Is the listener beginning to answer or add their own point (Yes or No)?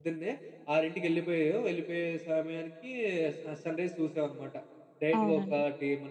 No